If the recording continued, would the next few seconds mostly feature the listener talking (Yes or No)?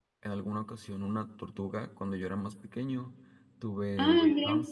No